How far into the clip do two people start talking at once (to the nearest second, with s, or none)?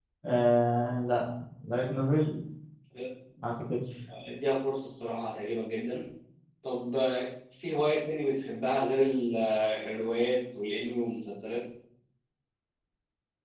none